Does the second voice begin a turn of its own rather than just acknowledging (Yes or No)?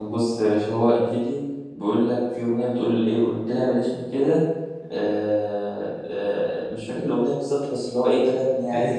Yes